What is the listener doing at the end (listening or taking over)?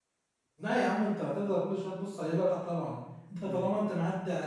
listening